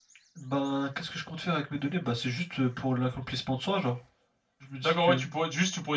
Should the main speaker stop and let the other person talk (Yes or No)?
Yes